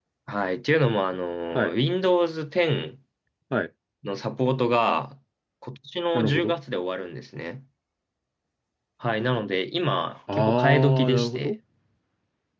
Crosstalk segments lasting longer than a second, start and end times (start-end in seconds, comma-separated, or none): 10.3-11.5